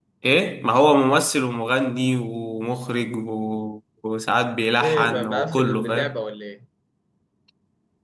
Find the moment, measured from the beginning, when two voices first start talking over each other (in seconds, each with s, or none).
4.8 s